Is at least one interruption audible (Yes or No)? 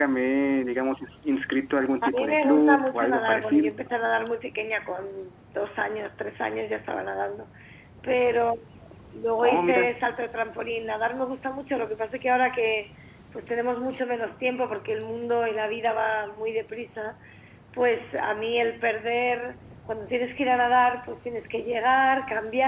Yes